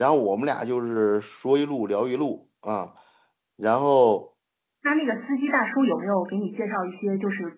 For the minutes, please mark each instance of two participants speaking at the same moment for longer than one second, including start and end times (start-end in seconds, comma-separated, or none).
none